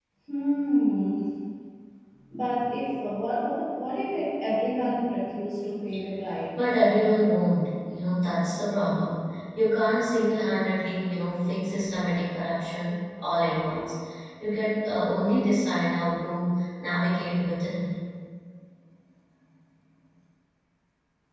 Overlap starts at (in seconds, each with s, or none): none